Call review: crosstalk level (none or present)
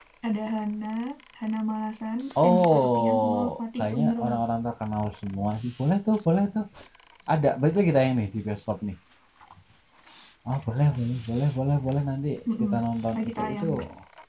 present